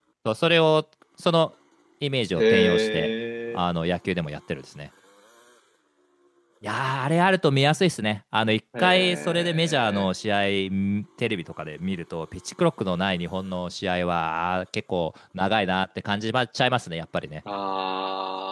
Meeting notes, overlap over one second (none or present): present